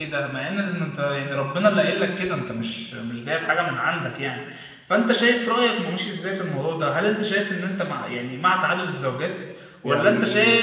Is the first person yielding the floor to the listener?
No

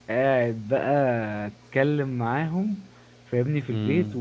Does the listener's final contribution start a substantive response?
No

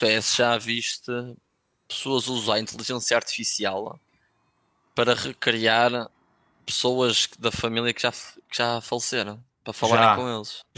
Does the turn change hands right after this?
Yes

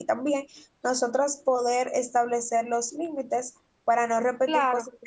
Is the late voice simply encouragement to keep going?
No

